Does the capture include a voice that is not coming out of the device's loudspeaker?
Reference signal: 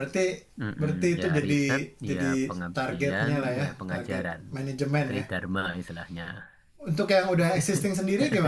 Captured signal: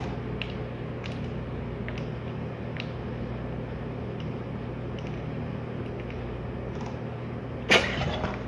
No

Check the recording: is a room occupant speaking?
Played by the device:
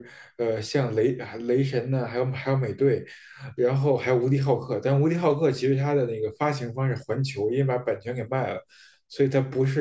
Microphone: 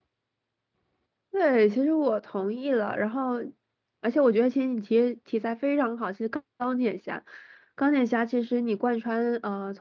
Yes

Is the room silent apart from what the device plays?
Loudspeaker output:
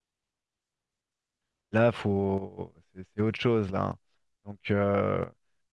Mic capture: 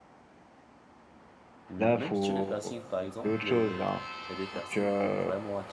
No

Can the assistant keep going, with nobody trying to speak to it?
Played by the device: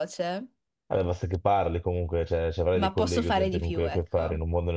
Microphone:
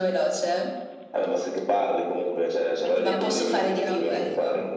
No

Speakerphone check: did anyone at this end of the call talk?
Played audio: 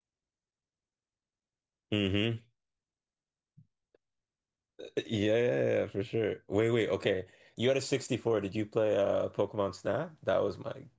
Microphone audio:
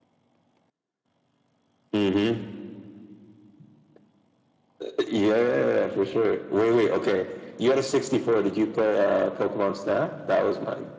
No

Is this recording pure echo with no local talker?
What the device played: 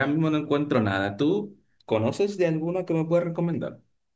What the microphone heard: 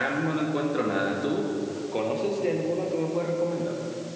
Yes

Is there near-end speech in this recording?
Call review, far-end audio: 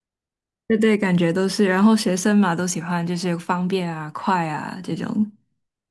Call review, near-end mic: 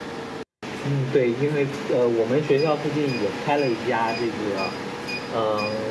Yes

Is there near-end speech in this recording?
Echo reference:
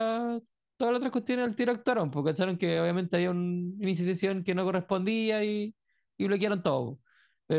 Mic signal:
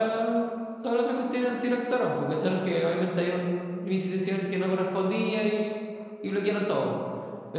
No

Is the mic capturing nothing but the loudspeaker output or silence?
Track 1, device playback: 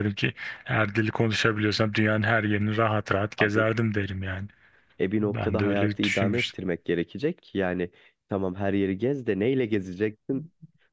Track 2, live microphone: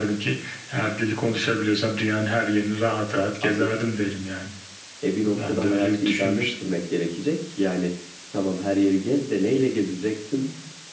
Yes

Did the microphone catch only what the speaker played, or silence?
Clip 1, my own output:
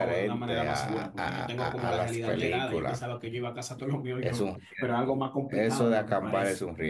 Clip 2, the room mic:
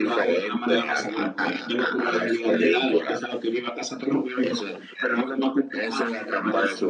Yes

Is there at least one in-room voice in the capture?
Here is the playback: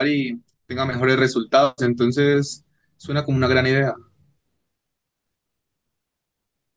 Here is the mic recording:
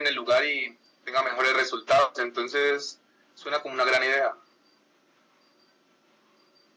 No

